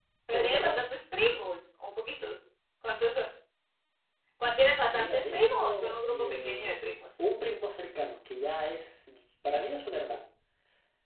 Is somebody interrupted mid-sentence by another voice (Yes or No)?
Yes